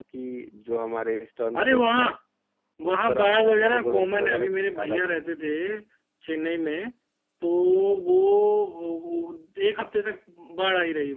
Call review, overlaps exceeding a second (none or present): present